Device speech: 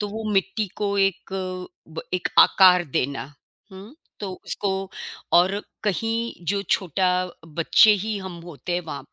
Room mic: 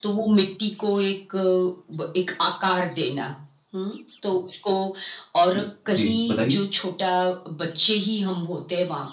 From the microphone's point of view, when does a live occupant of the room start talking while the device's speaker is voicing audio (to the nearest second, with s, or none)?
6 s